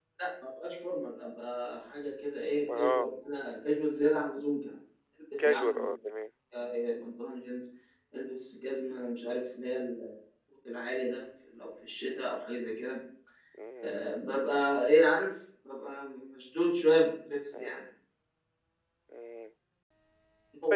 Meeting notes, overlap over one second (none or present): none